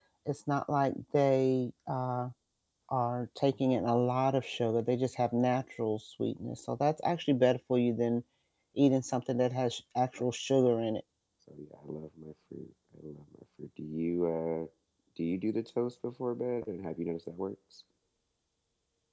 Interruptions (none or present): none